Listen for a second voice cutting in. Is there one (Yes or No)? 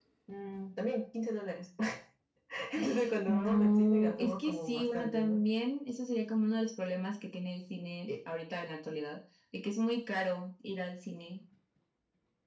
Yes